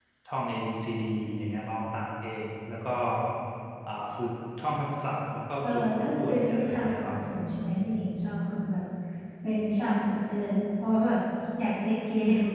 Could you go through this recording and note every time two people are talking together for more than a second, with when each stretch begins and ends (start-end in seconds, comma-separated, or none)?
5.6-7.1